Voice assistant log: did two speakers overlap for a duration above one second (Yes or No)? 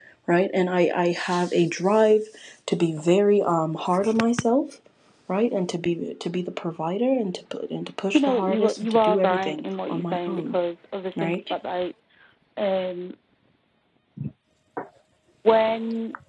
Yes